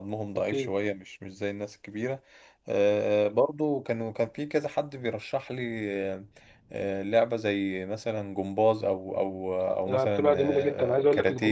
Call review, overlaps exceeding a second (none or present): present